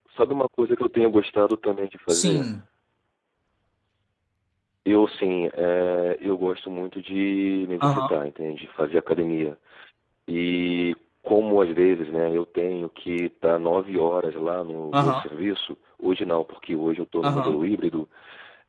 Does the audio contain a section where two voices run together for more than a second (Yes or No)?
No